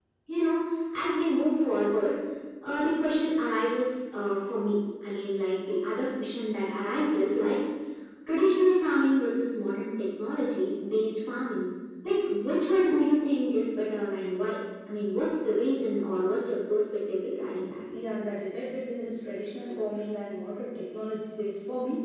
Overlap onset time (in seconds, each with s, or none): none